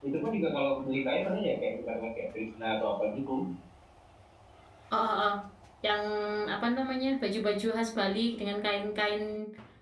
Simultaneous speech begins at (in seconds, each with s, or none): none